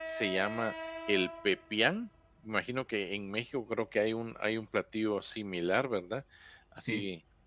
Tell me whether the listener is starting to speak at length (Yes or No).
No